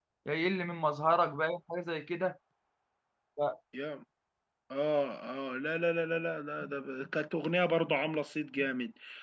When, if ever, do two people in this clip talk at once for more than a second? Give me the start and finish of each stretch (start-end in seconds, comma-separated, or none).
none